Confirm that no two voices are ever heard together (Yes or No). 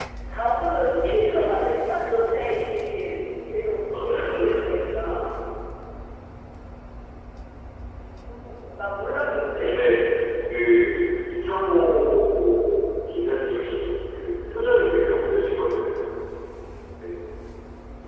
No